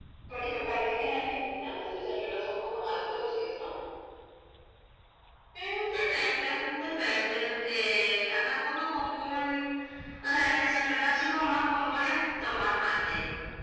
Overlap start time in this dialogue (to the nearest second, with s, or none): none